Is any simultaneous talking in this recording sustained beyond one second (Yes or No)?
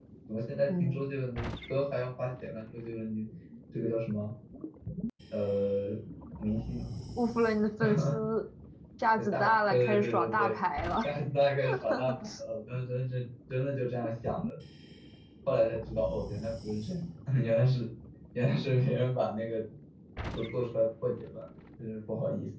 Yes